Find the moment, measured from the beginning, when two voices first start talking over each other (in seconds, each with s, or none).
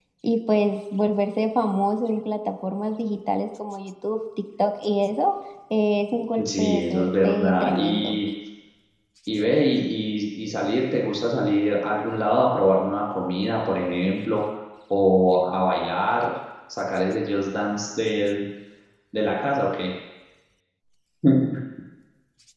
6.4 s